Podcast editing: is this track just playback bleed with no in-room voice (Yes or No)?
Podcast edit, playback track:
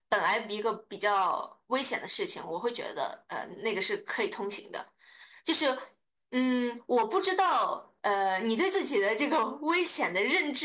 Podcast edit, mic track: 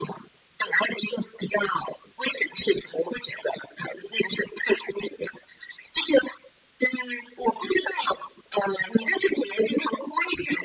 Yes